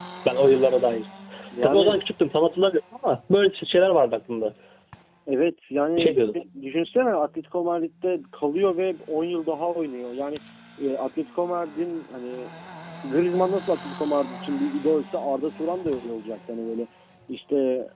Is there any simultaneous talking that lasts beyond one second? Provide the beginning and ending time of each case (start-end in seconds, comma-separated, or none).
none